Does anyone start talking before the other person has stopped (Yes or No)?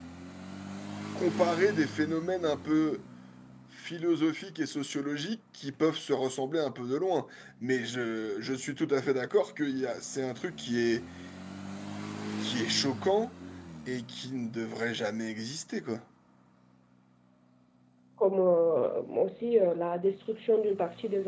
No